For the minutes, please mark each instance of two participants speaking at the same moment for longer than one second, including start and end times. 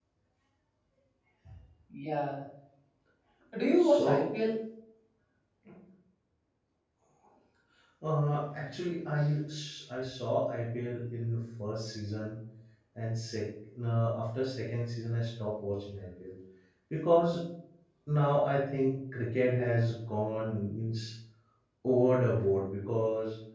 none

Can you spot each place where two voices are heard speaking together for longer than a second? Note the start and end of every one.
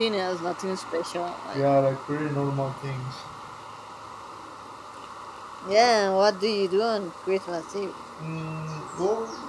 none

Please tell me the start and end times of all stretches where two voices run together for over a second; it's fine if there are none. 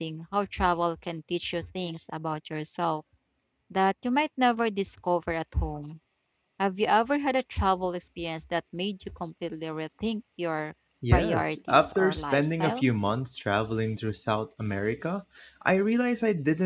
11.1-12.8

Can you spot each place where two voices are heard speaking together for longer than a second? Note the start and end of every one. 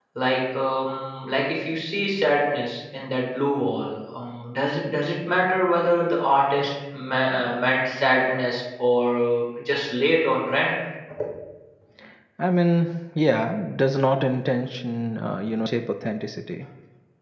none

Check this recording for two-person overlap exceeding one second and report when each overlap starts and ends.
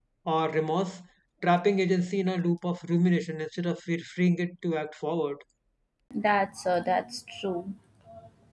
none

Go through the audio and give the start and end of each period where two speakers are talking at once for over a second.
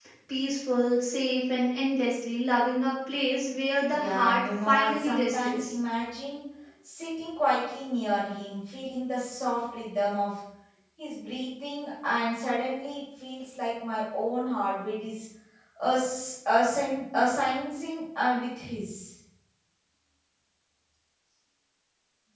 3.9-5.7

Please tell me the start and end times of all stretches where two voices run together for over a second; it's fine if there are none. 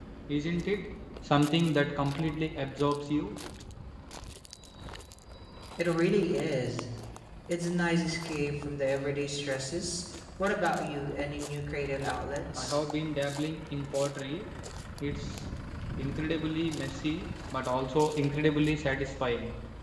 none

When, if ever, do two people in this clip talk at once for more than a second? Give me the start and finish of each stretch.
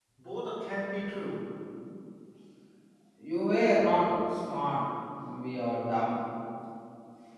none

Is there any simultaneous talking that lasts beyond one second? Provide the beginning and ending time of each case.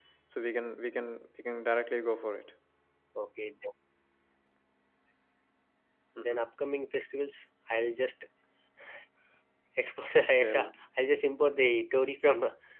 none

